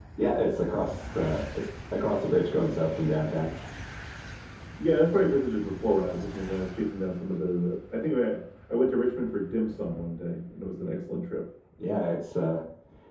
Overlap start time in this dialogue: none

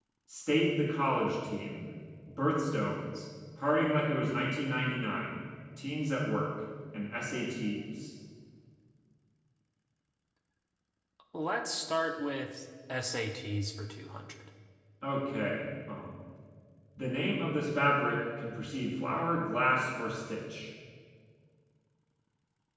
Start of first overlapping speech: none

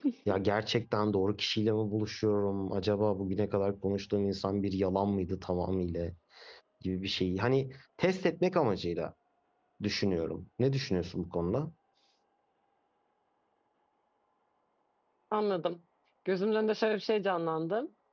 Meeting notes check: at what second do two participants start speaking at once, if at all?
none

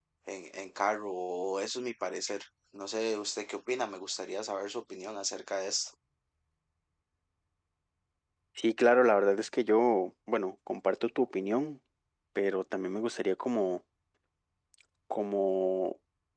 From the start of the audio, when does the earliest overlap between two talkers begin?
none

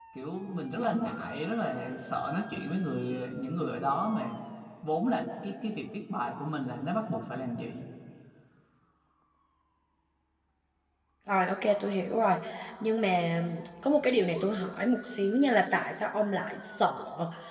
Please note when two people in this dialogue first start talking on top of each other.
none

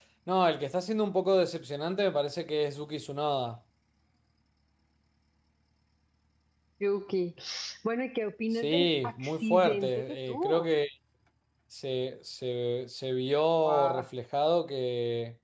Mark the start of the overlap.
8.5 s

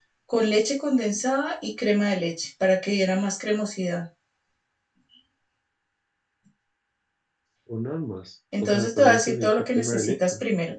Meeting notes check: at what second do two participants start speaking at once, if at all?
8.5 s

